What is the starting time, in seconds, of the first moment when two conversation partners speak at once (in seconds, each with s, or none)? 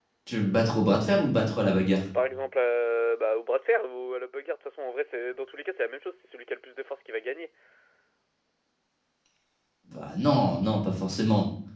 none